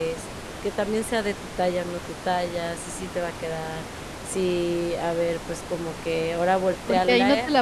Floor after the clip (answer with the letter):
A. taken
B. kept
A